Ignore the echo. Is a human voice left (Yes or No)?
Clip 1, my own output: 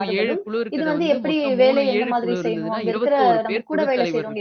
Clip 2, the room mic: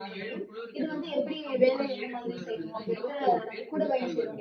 No